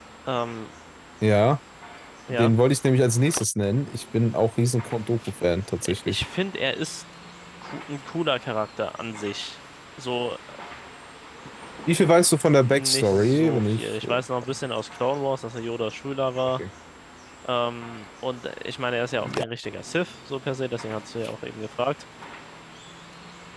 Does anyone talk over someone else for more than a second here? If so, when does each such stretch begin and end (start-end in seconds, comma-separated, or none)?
12.6-14.6